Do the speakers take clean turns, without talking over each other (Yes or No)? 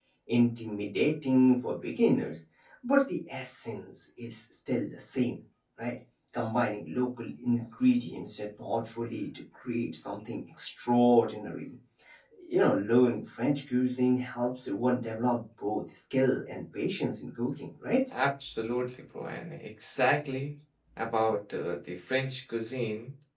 Yes